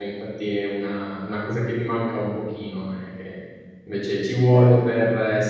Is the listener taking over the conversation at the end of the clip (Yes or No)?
No